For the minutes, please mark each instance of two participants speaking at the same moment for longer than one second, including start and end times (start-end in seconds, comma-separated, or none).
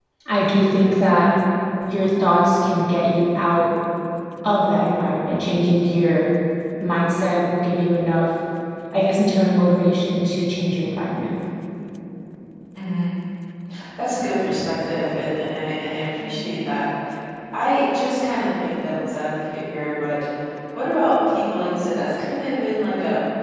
none